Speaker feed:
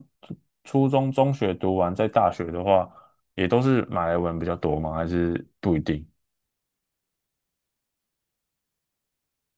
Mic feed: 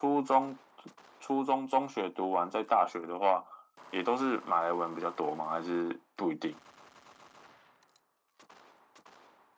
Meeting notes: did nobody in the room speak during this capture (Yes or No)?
Yes